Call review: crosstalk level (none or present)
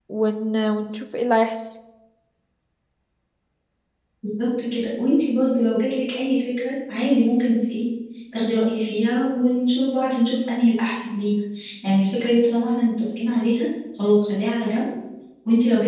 none